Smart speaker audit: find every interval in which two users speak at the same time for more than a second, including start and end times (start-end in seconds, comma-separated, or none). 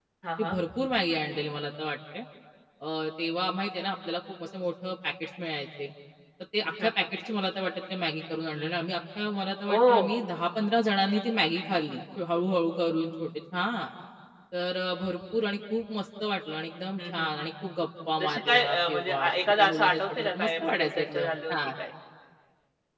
18.2-21.6